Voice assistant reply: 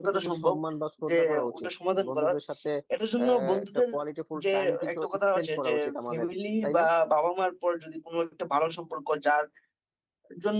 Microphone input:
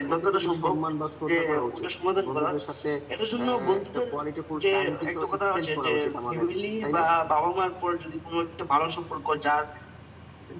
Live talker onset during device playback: none

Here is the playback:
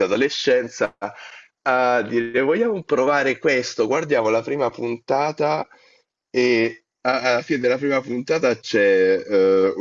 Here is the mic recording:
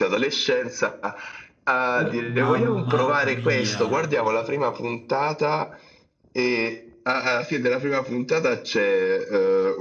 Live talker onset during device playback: 1.9 s

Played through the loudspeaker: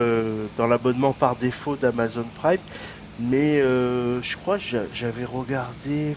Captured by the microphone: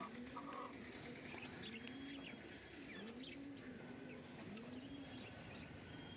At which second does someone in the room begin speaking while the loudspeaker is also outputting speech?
none

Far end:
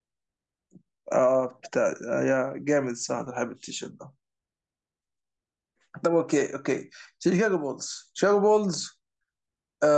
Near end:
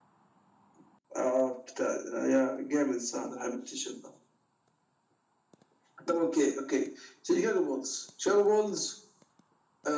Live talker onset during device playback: none

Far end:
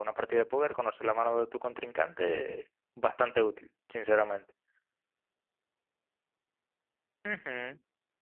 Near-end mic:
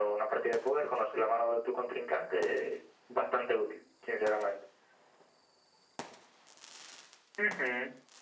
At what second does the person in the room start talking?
none

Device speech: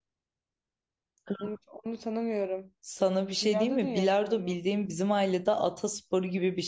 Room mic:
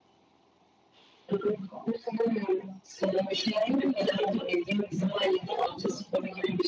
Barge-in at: none

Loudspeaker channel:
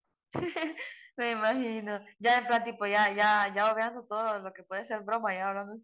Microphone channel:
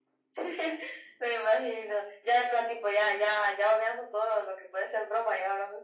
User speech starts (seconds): none

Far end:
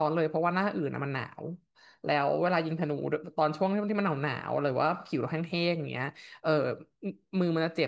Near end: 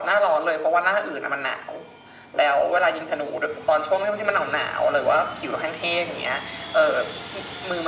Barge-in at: none

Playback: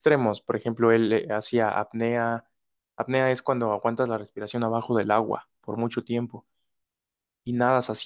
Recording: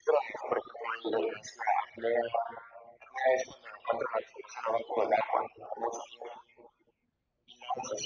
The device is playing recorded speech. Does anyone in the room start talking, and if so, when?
none

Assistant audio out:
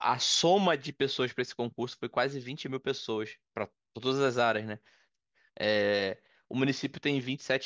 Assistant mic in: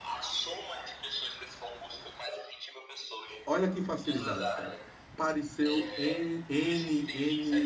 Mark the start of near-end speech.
3.5 s

